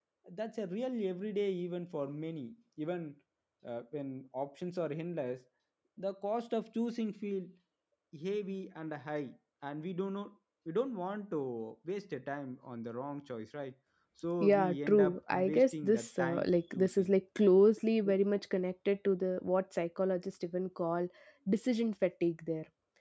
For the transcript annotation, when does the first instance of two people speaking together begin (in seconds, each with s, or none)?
14.4 s